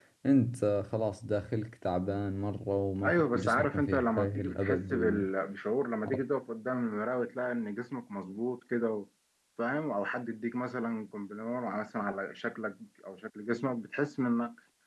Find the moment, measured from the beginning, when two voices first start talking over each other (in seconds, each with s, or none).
3.0 s